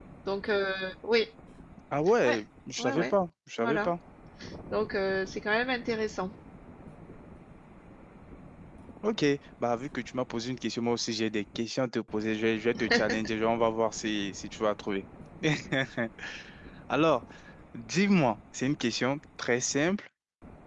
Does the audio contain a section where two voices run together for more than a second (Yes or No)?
No